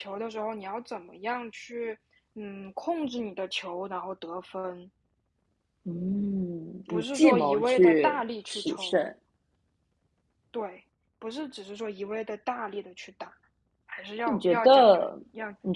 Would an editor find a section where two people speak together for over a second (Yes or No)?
Yes